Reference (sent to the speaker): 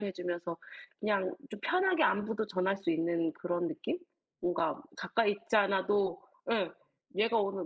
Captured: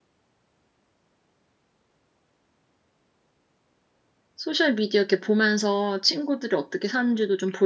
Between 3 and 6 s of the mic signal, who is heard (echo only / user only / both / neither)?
user only